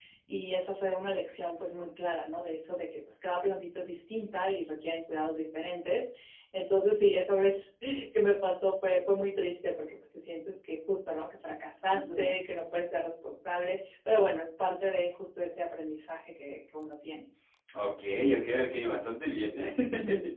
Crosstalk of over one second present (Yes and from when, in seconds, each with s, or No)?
No